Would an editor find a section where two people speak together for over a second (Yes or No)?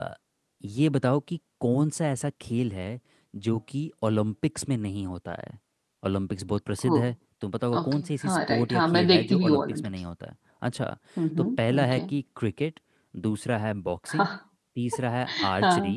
Yes